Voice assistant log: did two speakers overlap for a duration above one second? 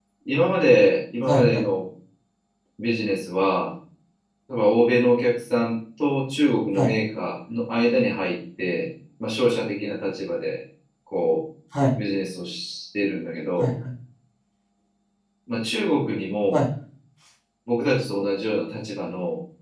No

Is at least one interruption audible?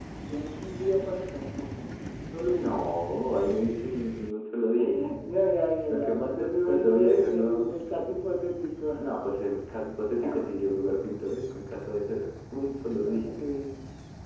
Yes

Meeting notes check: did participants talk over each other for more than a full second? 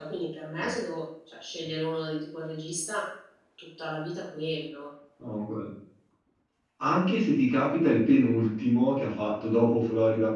No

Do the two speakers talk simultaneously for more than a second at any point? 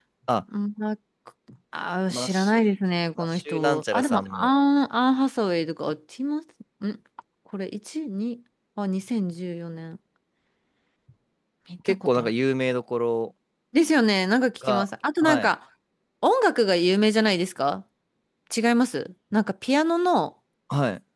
Yes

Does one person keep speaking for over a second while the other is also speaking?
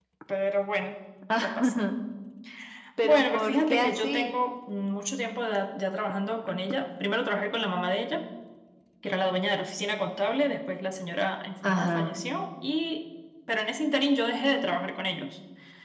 Yes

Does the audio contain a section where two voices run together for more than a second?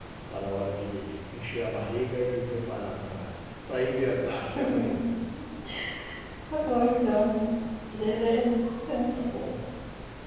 No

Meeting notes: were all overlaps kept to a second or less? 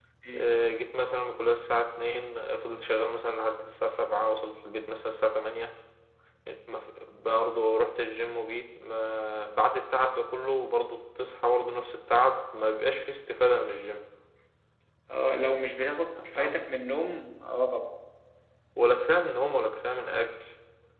Yes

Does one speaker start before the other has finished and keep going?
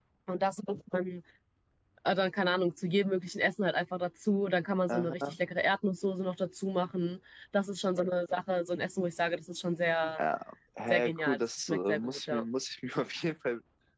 Yes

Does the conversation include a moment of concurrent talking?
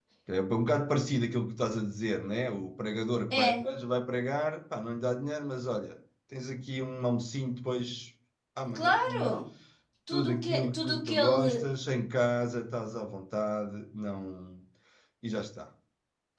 Yes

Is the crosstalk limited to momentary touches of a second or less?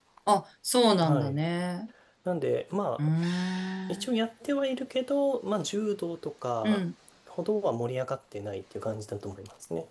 Yes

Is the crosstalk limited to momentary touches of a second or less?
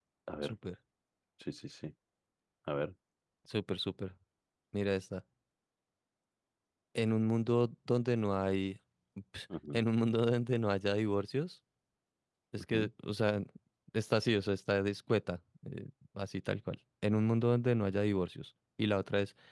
Yes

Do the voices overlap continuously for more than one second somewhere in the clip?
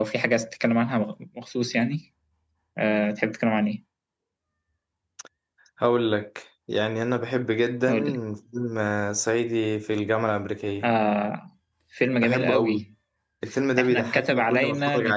Yes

